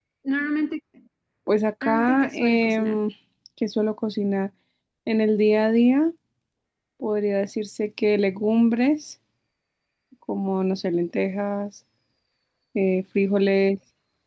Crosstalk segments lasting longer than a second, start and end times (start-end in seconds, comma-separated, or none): 1.8-3.0